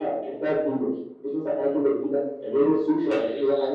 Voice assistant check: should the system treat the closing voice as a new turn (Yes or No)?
No